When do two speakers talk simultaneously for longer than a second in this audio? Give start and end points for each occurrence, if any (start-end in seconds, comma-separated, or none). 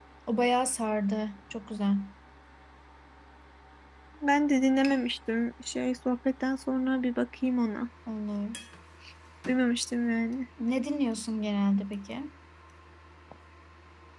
none